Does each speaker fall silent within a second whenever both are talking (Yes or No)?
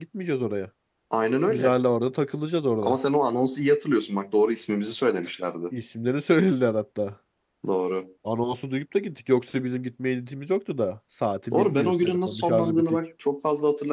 No